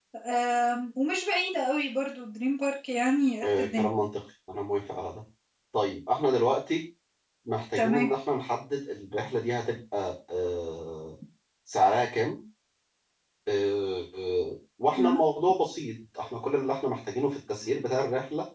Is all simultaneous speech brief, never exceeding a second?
Yes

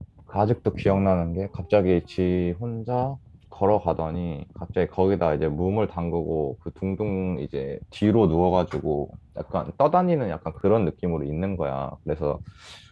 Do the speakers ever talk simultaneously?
No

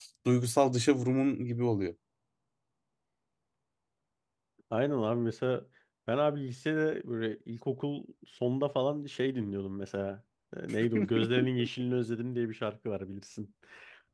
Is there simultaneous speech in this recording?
No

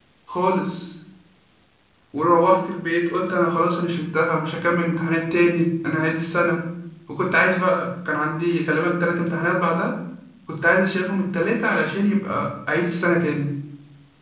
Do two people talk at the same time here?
No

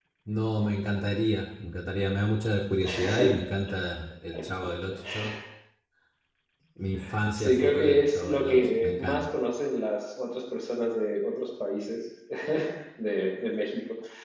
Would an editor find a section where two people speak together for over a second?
Yes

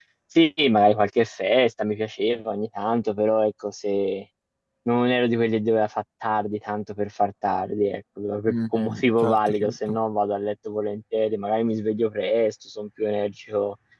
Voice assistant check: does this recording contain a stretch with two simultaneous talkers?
Yes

